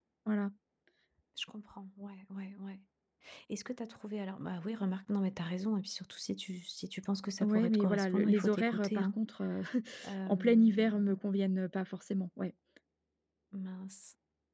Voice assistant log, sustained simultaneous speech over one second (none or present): present